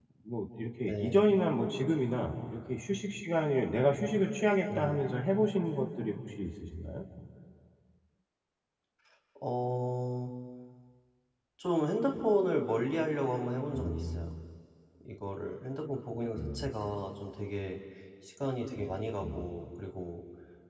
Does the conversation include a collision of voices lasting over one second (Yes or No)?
No